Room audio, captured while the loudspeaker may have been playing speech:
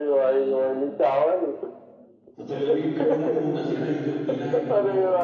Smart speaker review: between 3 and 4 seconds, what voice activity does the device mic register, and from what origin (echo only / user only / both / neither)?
both